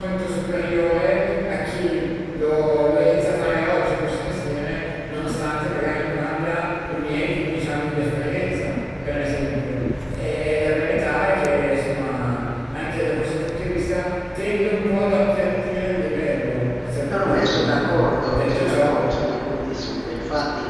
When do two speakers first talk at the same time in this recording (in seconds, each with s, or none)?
17.0 s